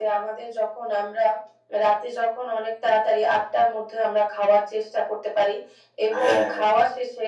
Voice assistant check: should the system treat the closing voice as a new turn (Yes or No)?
No